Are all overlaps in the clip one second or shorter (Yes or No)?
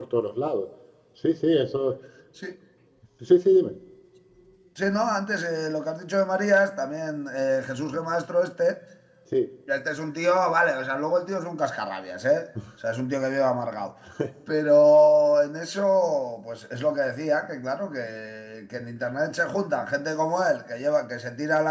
Yes